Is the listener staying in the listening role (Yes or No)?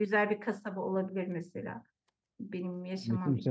No